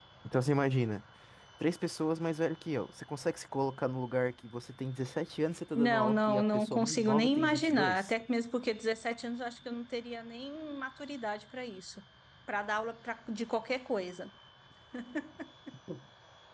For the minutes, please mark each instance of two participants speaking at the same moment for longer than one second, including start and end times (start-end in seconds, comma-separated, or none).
5.8-8.1